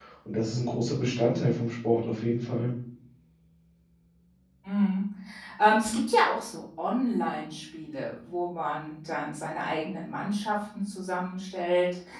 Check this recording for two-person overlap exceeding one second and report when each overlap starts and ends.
none

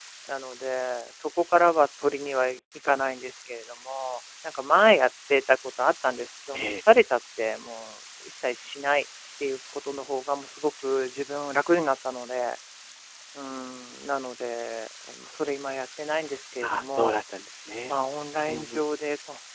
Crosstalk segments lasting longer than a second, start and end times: none

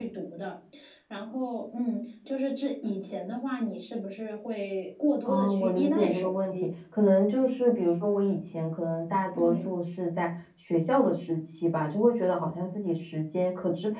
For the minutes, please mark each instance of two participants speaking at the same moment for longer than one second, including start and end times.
5.2-6.7

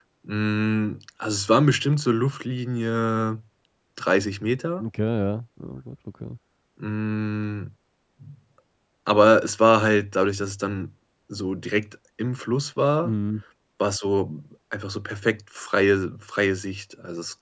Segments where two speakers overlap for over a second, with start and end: none

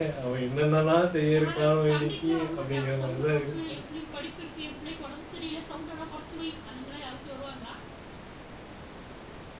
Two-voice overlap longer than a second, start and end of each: 1.4-3.6

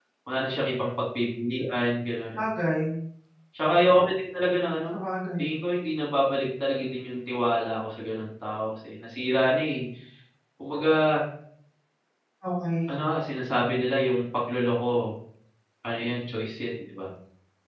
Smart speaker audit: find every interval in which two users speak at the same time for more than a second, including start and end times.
none

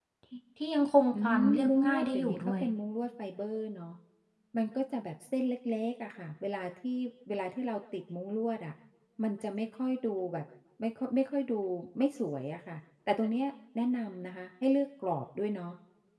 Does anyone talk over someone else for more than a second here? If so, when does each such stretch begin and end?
1.1-2.6

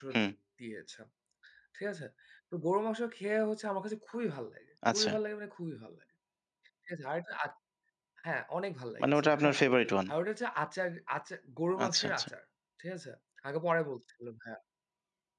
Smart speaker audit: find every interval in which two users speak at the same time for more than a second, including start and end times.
none

